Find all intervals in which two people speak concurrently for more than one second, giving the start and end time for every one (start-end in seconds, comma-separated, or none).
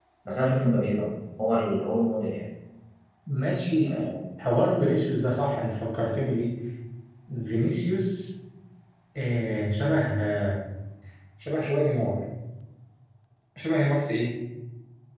none